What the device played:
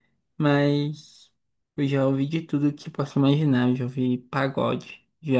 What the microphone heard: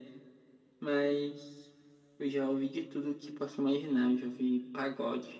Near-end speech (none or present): none